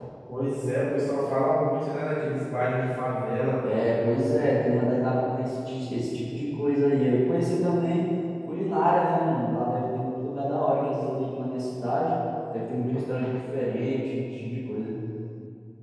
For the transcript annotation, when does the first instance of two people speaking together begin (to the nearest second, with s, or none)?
none